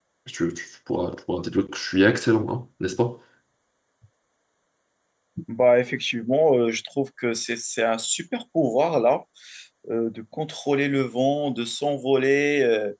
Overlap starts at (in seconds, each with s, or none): none